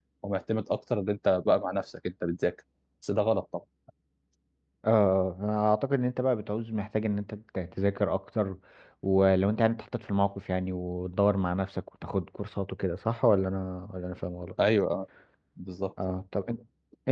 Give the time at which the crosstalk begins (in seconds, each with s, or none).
none